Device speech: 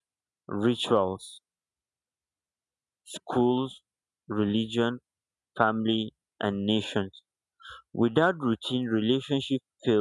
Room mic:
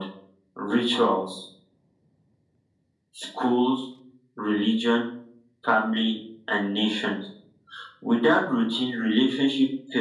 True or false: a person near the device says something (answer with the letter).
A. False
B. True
A